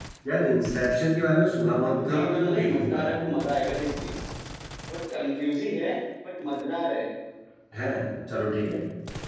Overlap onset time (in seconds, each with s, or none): 1.9 s